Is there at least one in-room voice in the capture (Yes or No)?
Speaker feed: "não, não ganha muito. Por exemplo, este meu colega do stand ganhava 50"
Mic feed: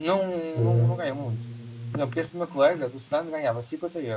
Yes